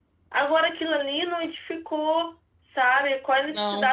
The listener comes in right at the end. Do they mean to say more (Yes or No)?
No